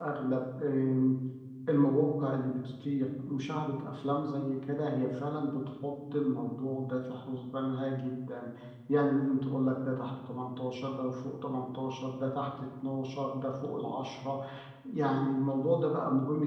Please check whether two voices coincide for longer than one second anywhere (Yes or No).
No